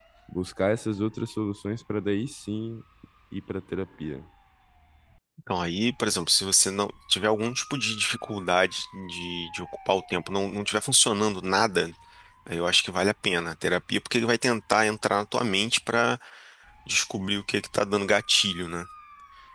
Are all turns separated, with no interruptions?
Yes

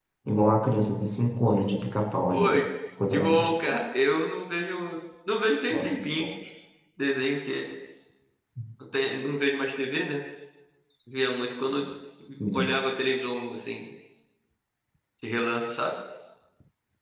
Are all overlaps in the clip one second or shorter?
Yes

